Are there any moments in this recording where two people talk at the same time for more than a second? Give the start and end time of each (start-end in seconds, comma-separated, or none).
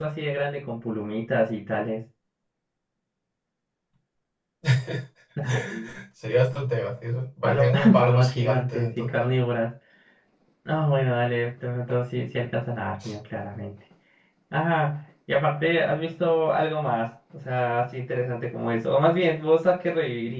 7.4-9.2